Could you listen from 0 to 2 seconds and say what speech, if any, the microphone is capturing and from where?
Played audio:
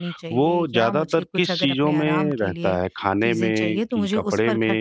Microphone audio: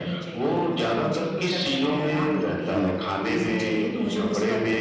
echo only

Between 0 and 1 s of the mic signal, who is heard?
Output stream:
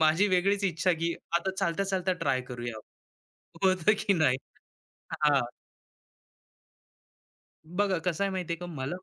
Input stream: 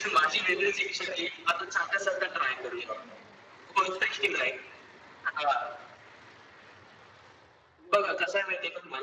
echo only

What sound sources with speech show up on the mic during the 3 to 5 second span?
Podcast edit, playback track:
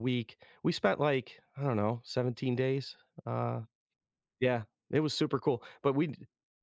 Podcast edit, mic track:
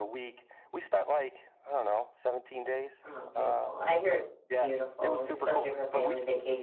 both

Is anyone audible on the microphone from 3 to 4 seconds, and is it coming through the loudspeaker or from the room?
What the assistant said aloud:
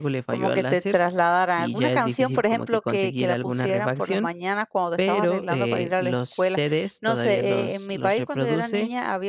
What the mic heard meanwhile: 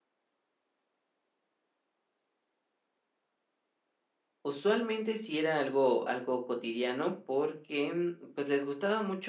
neither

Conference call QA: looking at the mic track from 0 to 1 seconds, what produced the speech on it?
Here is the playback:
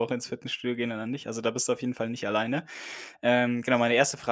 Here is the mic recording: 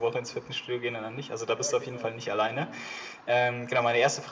echo only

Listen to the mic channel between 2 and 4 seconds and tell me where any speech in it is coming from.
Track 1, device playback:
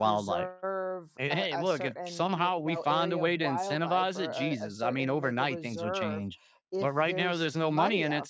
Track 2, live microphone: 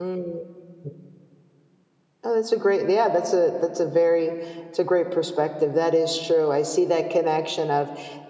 user only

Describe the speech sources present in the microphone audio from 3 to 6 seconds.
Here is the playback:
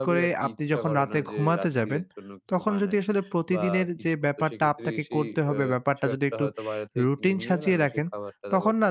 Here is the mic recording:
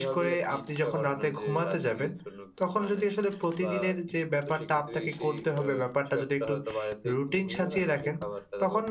echo only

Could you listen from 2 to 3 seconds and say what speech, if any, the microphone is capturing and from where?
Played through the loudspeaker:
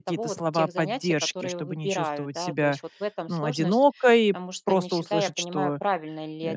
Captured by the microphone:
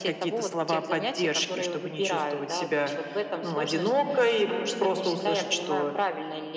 echo only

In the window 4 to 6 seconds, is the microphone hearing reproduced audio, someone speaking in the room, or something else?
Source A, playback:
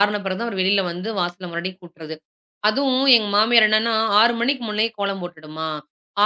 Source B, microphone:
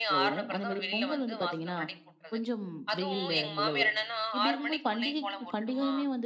both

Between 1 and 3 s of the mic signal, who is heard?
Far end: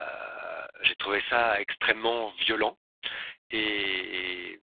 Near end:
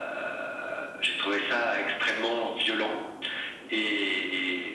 echo only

